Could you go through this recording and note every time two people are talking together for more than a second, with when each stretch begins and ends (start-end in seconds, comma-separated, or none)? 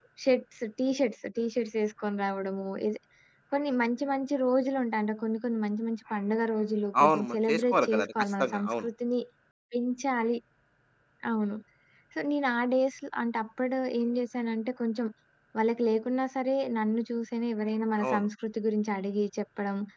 7.0-8.9